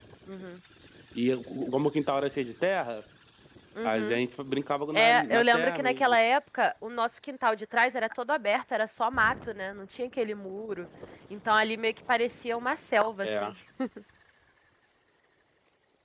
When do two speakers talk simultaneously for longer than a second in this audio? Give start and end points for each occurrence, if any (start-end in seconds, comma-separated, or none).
4.9-6.2